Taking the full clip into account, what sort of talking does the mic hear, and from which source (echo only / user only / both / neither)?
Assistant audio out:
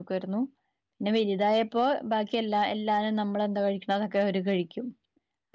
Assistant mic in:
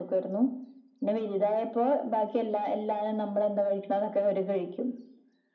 echo only